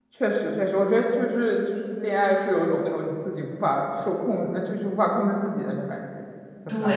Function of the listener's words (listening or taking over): taking over